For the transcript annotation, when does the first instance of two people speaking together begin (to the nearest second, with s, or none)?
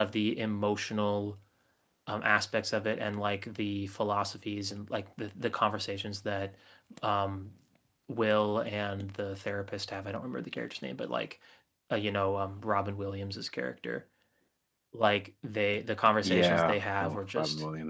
16 s